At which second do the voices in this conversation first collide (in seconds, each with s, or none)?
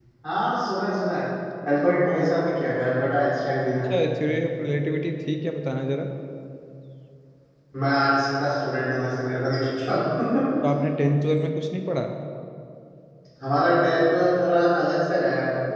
none